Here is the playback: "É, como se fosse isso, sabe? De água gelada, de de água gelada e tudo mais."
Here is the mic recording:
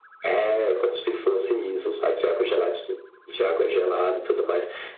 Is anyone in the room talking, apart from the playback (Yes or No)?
No